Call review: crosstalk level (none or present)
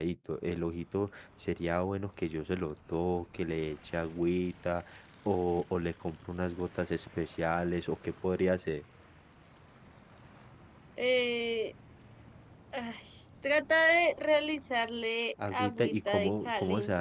present